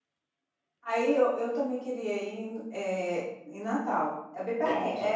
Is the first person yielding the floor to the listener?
Yes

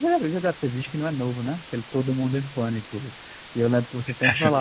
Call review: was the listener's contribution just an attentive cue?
Yes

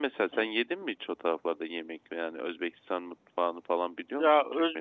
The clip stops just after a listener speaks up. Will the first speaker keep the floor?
No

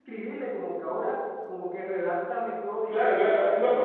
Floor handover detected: Yes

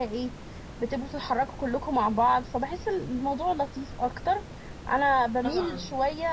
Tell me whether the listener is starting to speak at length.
No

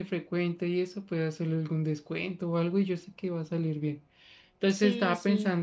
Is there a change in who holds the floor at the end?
No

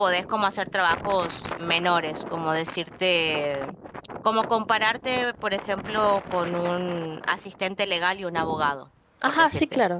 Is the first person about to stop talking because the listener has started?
Yes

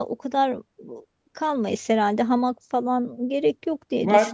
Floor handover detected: Yes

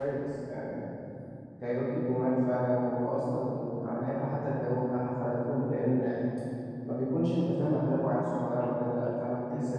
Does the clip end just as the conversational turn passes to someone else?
Yes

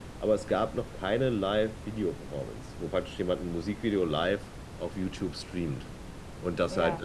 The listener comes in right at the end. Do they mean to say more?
No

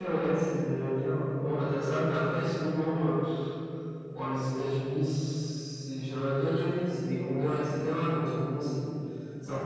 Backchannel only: Yes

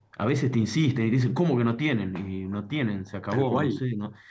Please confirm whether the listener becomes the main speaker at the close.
No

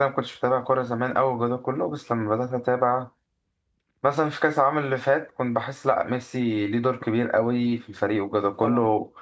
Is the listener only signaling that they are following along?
Yes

